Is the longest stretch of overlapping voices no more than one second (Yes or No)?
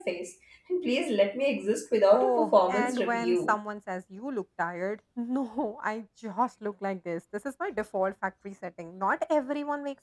No